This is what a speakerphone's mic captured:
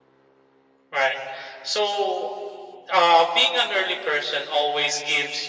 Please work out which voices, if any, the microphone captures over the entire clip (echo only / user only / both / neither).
echo only